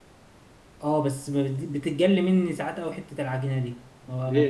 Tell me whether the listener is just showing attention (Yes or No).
No